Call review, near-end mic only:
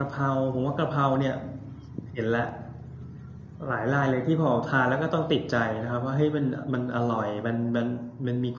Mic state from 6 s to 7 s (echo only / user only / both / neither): user only